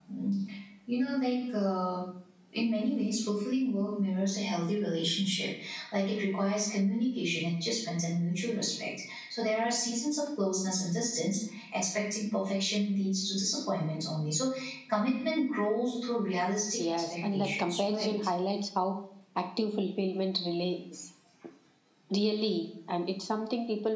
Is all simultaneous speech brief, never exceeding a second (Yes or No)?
No